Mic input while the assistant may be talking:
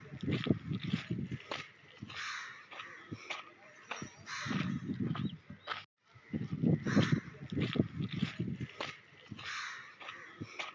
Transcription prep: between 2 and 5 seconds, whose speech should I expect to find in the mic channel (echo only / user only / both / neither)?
neither